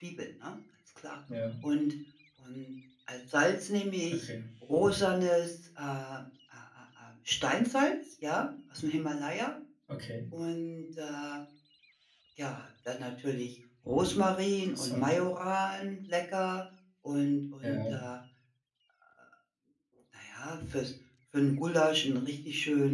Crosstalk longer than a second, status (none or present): none